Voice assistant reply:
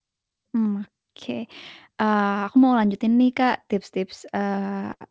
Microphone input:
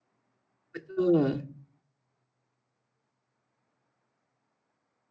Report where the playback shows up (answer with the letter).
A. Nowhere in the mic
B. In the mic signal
A